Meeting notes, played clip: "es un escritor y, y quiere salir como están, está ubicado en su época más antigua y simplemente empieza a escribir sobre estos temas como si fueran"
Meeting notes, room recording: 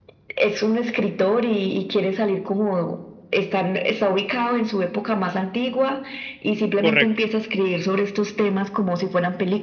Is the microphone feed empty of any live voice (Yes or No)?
No